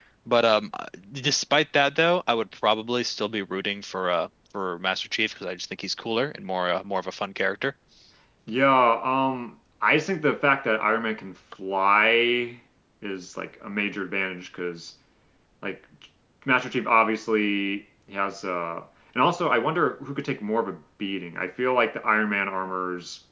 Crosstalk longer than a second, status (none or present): none